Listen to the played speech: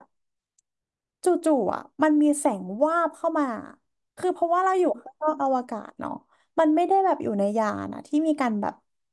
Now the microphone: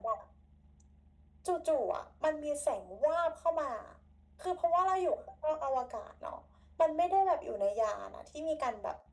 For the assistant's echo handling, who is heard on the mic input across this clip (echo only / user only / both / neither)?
echo only